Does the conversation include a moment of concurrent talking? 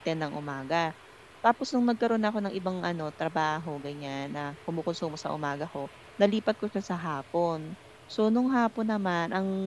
No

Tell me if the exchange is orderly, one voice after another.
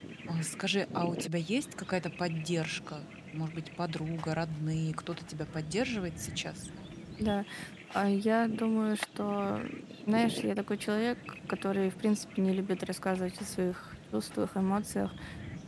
Yes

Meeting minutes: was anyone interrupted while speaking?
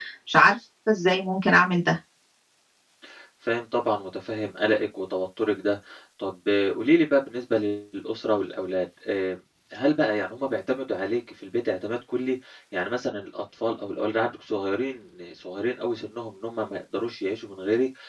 No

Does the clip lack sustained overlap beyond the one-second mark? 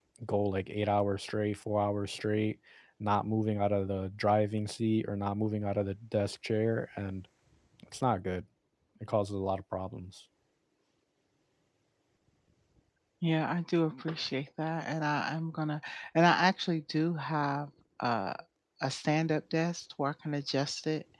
Yes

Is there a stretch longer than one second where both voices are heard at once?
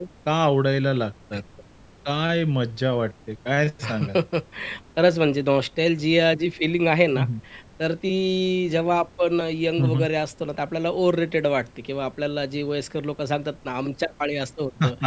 No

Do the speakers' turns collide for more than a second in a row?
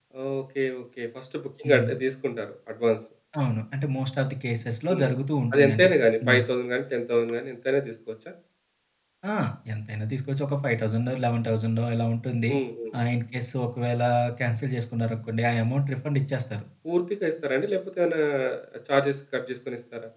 No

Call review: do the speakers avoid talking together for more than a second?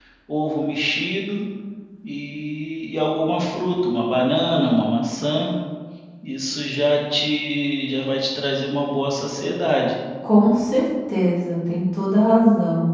Yes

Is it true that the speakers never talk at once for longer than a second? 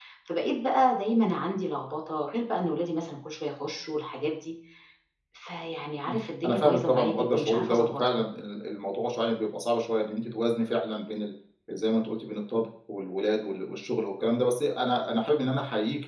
No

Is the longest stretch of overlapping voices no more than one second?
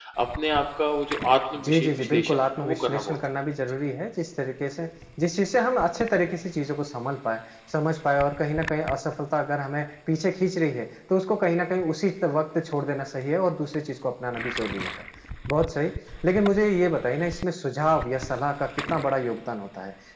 No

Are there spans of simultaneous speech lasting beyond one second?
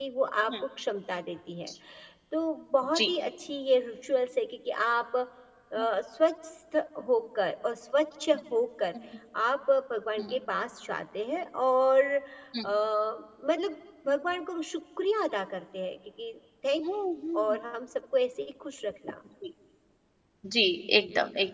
No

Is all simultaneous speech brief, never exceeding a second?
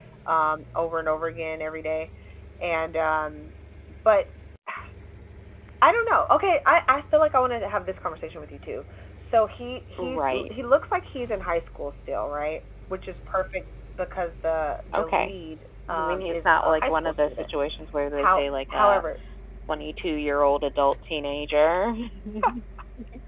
No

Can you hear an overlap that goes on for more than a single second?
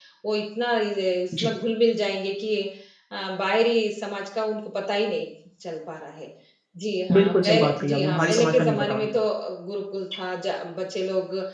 Yes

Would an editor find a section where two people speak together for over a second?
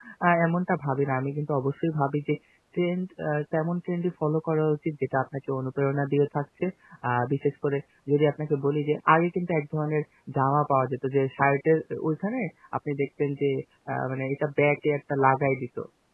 No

